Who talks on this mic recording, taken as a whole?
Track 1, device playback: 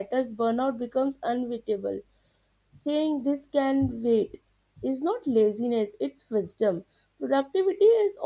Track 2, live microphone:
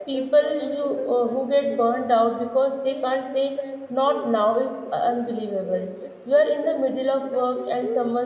both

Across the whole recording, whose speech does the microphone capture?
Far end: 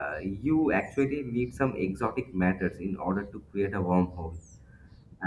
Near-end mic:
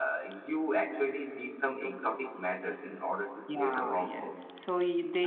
both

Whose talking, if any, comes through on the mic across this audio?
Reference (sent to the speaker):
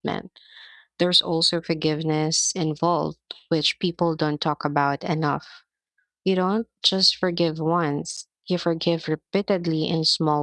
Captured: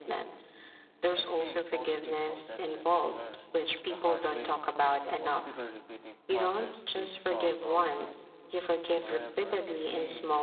both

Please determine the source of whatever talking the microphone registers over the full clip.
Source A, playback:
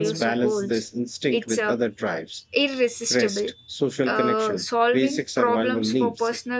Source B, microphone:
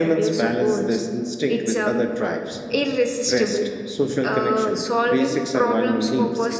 echo only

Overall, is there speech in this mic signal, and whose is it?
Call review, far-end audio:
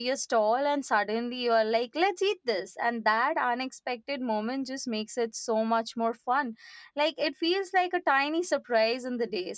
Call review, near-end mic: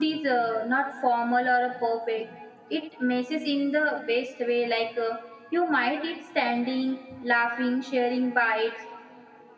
user only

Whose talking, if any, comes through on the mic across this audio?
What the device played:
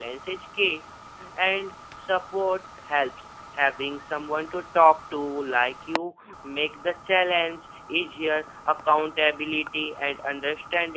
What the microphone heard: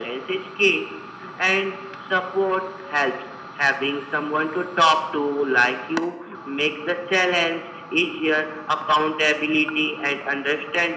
echo only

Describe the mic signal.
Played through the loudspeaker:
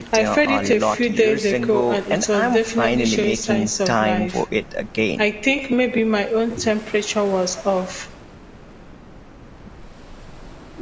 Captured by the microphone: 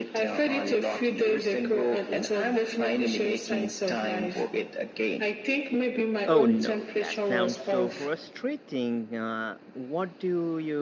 both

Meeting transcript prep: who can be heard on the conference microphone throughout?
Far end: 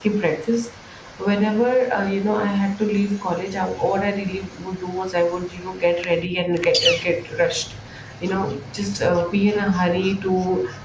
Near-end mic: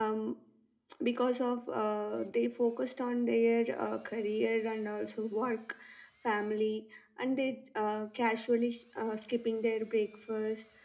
user only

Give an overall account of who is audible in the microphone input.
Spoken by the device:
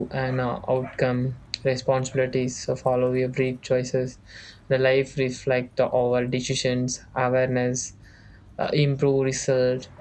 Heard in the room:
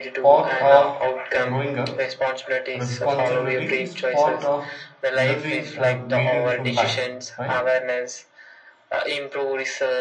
both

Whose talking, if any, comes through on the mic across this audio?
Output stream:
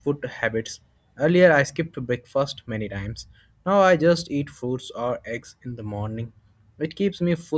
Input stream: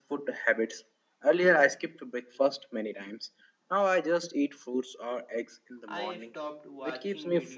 both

